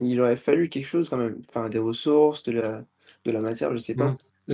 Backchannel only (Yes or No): No